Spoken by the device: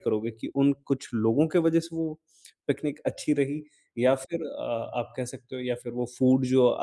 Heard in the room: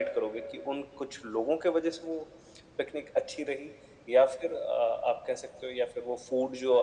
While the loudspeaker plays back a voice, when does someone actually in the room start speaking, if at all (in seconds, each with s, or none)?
none